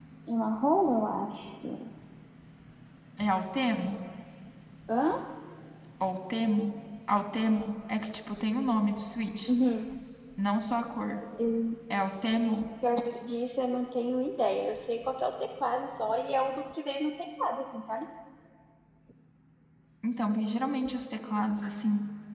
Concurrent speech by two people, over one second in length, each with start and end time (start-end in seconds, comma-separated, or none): none